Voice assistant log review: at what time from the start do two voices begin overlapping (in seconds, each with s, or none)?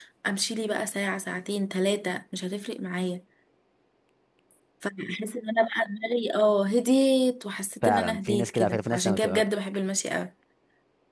7.8 s